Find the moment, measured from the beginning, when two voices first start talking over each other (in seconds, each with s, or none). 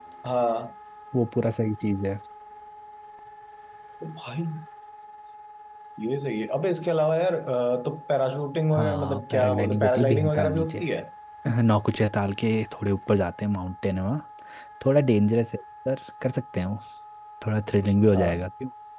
8.7 s